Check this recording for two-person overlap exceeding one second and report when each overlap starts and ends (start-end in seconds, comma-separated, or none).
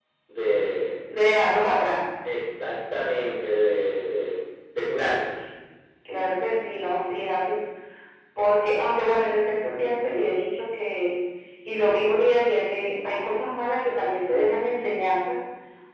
none